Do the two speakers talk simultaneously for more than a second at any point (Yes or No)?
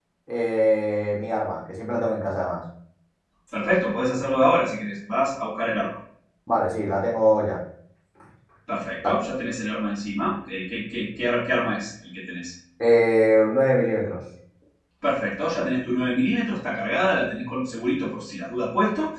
No